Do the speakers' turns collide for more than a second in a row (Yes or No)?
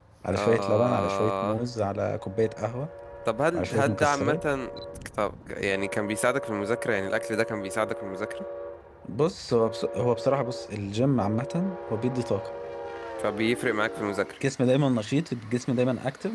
Yes